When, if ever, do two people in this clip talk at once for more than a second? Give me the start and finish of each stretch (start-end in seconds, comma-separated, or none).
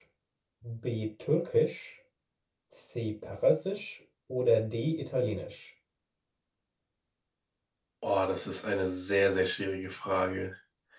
none